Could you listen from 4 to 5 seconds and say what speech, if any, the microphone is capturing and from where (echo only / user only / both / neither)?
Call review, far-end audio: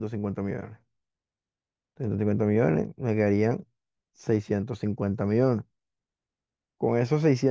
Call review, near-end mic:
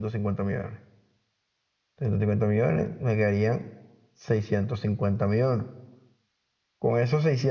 echo only